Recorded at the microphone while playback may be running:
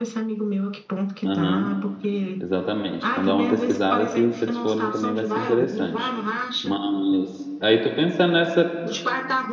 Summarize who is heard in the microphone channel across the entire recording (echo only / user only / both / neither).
both